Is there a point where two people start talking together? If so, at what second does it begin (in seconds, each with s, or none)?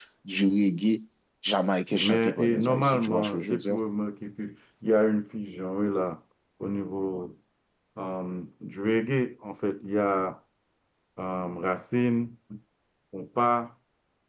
1.9 s